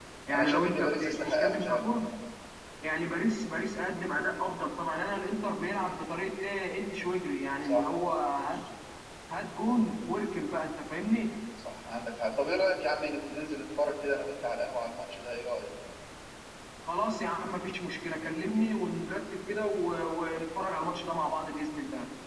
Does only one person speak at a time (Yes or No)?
No